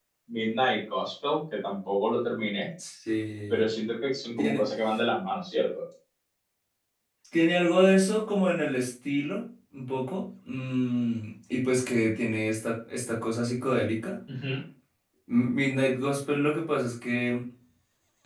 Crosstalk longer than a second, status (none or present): none